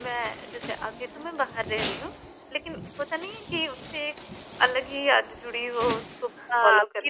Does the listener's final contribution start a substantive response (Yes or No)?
Yes